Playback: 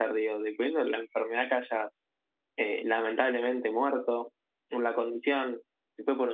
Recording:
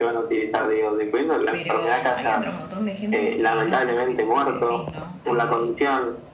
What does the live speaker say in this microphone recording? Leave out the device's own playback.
Pero hay otro montón de gente que no, que es esto que decís, ¿no? Eh,

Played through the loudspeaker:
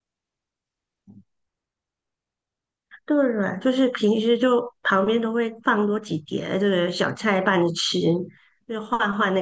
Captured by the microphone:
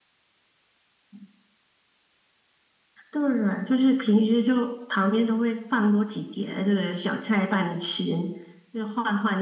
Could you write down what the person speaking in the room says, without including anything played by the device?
none

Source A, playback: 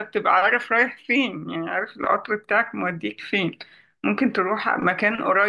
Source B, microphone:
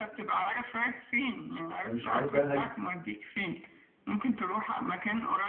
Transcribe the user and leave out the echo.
انا مش عارف بقى هل دي-

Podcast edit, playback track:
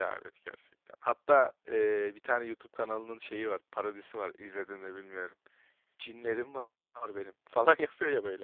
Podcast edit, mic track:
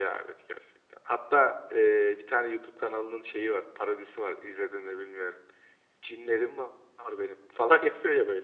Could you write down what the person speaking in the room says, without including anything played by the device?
none

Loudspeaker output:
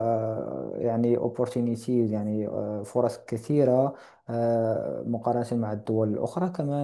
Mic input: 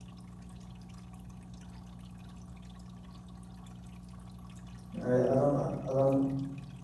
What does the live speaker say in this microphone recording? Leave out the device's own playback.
آه، أظن أظن

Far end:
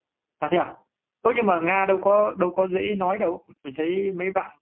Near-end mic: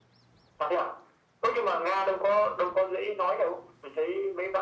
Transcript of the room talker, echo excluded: none

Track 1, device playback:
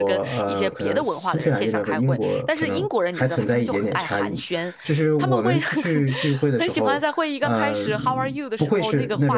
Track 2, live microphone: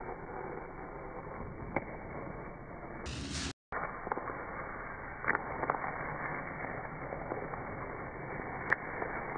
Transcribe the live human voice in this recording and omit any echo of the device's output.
none

